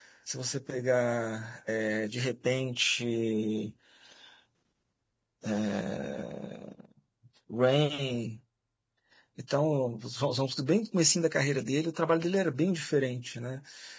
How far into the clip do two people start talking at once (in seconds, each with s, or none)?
none